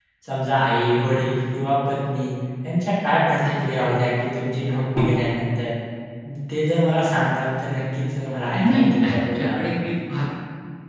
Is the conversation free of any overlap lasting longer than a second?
No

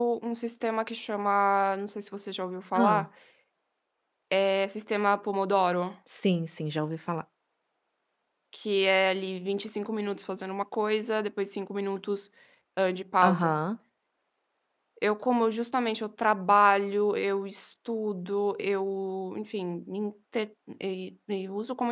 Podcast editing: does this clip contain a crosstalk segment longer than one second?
No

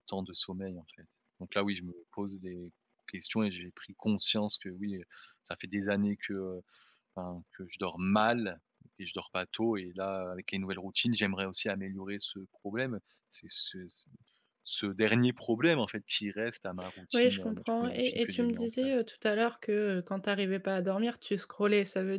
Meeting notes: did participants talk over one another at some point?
Yes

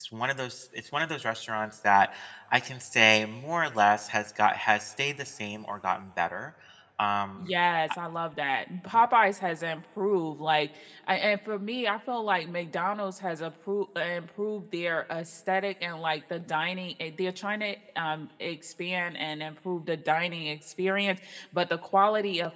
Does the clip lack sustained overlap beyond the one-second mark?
Yes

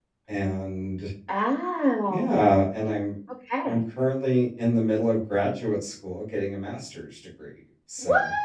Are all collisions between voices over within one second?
Yes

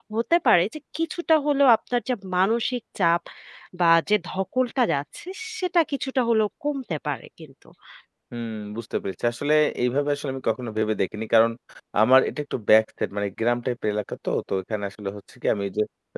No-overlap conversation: Yes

